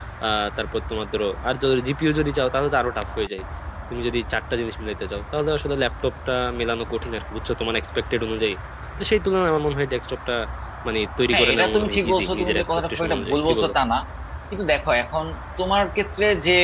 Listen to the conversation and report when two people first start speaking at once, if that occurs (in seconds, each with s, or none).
11.3 s